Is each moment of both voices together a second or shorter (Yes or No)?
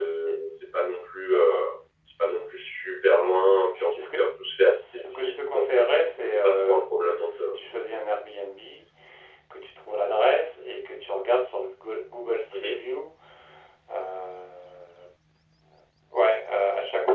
No